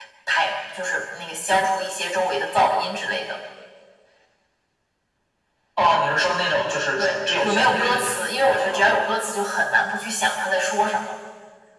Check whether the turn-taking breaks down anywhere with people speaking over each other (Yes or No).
Yes